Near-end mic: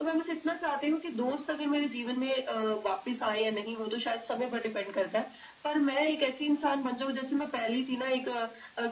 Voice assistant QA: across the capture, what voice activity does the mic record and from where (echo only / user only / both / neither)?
echo only